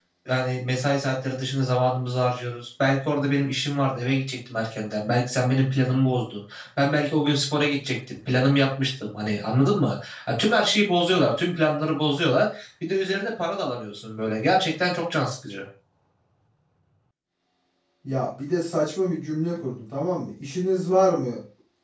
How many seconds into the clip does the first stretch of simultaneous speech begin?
none

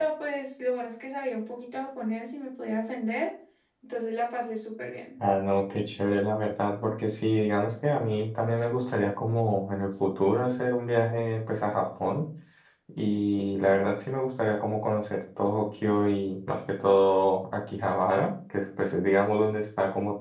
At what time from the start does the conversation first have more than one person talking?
none

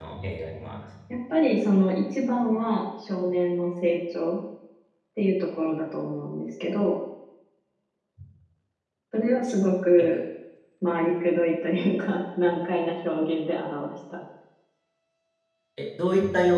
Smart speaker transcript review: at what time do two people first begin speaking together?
none

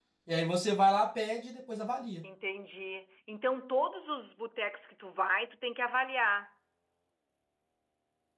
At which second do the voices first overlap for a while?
none

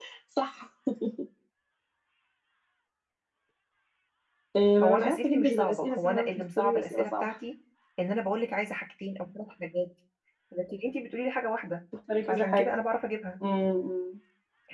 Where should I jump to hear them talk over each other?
4.8 s

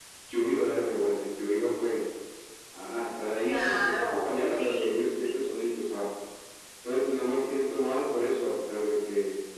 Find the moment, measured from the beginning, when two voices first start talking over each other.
3.4 s

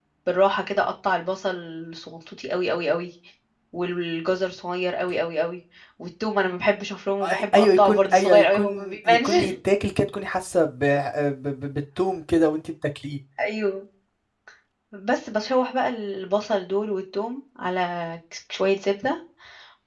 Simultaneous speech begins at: 7.2 s

